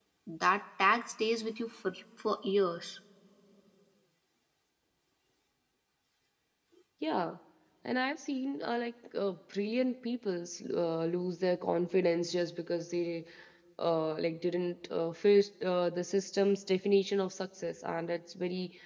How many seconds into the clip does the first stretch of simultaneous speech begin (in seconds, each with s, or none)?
none